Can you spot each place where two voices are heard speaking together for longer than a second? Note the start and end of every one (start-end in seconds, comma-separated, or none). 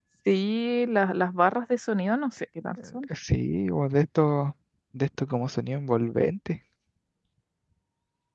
none